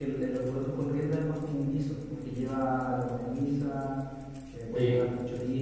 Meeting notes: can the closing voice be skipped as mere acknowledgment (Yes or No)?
Yes